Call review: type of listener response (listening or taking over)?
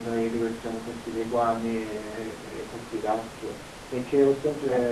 listening